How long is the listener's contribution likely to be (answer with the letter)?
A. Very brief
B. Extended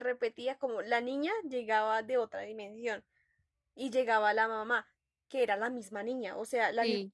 A